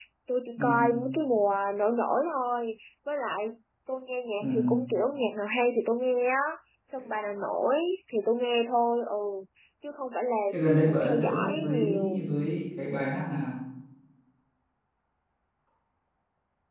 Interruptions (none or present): present